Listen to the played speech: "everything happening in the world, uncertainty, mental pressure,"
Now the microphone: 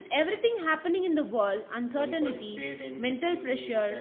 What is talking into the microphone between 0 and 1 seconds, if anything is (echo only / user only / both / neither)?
echo only